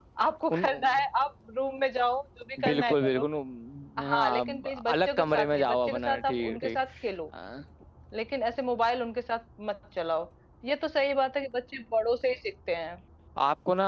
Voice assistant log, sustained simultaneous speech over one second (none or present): present